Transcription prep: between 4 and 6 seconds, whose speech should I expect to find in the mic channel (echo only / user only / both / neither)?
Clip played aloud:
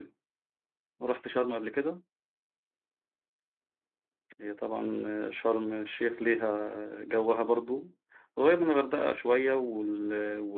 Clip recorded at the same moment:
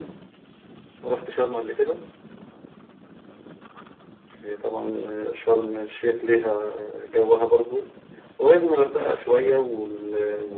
echo only